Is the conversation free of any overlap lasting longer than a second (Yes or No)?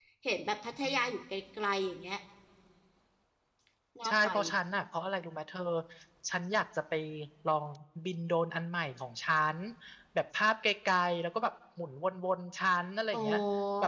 Yes